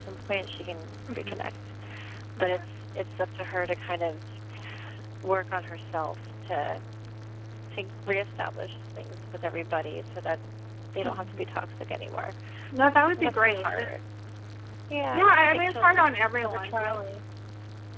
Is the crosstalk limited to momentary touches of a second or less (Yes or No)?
No